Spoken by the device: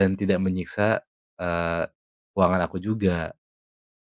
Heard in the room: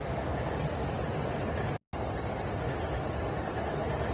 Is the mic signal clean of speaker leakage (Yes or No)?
Yes